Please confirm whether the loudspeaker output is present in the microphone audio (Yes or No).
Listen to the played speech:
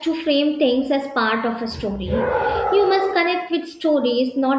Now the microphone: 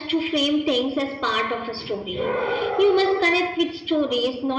Yes